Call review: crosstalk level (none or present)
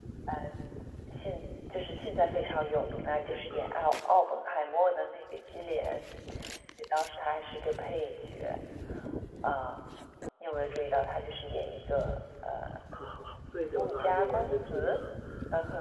present